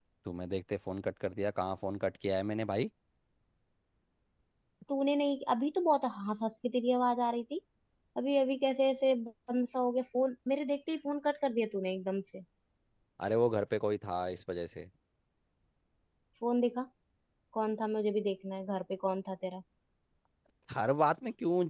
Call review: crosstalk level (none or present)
none